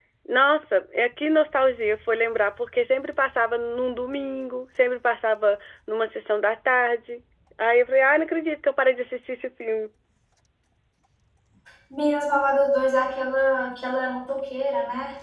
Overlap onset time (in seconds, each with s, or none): none